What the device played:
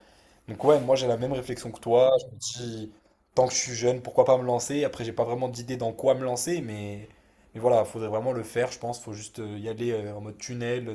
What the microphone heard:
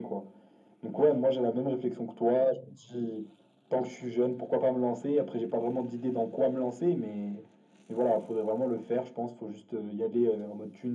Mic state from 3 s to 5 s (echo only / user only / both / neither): echo only